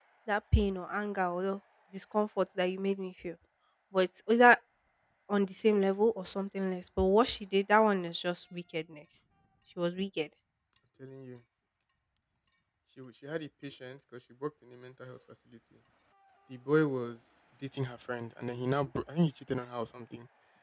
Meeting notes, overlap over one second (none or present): none